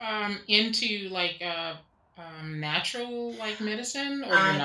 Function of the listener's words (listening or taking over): taking over